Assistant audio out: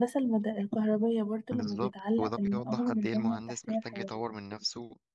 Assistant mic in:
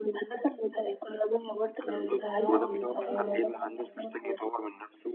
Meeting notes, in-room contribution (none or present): present